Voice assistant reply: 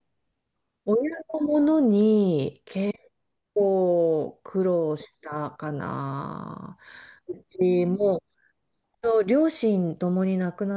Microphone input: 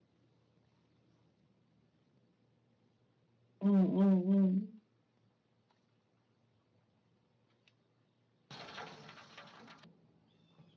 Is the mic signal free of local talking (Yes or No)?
No